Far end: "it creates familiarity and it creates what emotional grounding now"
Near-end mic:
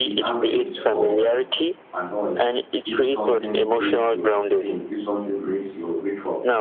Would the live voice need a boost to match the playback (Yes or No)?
Yes